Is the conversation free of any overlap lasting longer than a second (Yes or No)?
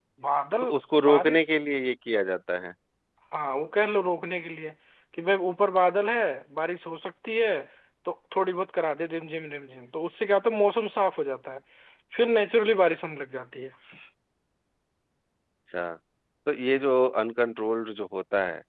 Yes